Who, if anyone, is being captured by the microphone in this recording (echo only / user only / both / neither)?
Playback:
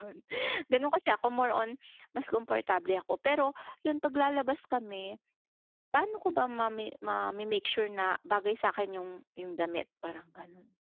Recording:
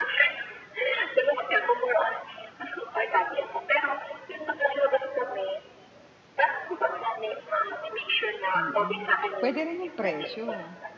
both